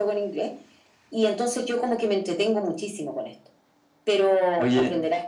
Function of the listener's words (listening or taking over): listening